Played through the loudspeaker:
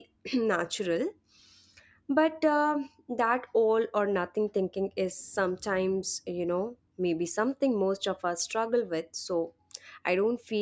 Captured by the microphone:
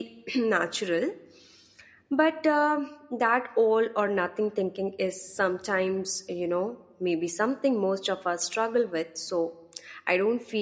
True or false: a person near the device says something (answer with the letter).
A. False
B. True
A